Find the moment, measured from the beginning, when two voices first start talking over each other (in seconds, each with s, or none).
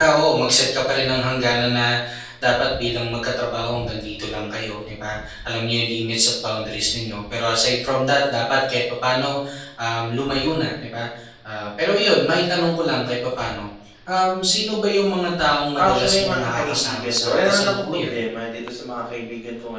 15.8 s